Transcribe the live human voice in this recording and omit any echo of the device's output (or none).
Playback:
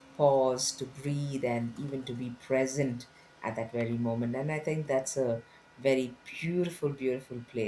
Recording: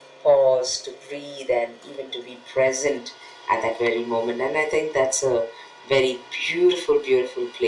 none